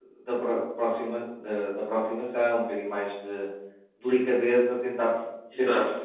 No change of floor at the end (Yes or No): Yes